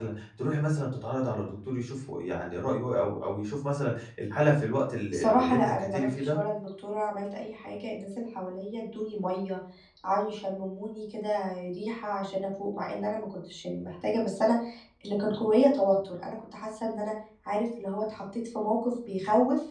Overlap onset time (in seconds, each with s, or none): 5.1 s